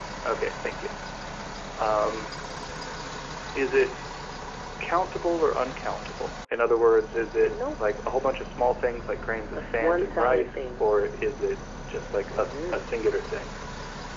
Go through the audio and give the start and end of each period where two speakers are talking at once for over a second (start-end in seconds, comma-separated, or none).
9.5-10.8